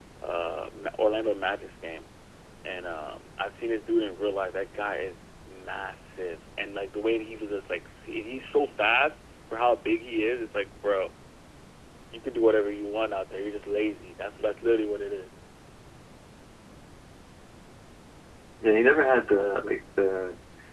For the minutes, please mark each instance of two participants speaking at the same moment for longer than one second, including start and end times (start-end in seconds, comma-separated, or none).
none